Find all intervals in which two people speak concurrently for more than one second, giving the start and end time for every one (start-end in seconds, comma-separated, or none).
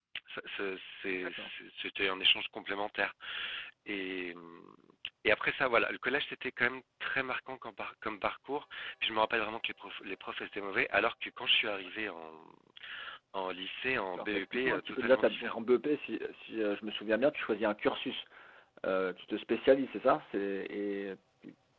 14.2-15.6